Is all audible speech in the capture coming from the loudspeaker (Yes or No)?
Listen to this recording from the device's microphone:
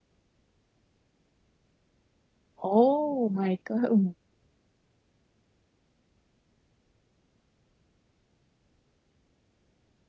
No